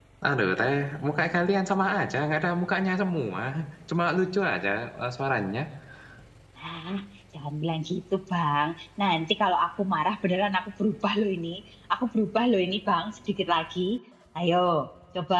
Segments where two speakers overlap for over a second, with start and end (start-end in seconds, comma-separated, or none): none